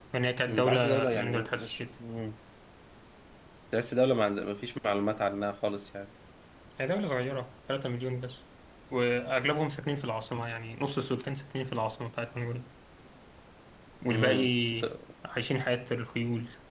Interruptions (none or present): present